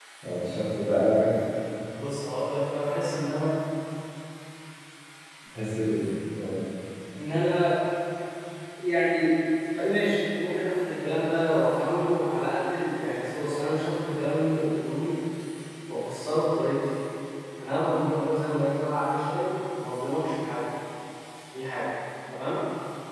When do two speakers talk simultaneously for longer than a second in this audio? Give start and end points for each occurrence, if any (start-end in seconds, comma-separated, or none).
none